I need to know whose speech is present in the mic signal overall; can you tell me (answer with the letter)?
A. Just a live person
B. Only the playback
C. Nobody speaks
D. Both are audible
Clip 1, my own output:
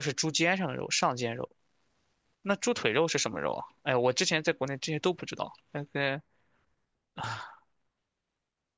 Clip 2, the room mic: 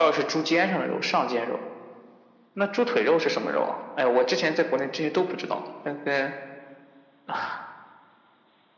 B